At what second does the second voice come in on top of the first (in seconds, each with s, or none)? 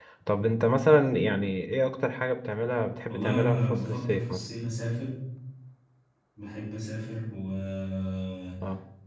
3.1 s